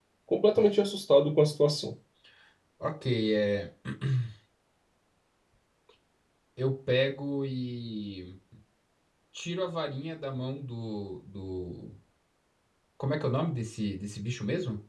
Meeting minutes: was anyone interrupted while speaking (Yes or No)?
No